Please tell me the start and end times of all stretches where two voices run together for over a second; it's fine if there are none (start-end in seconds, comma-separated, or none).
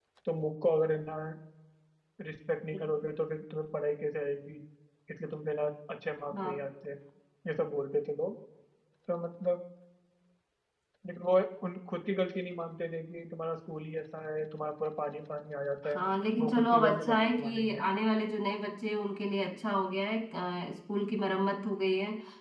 16.4-17.8